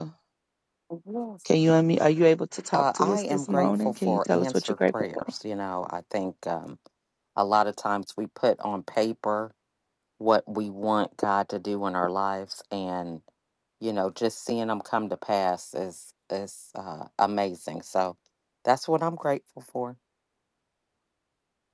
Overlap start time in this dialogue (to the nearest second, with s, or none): 3 s